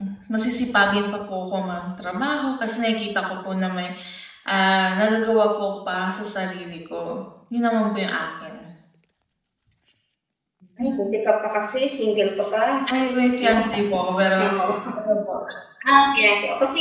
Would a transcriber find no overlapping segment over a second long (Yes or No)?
Yes